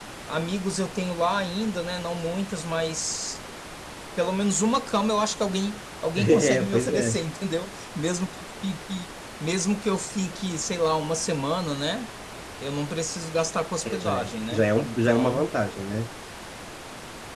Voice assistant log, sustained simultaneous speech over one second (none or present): present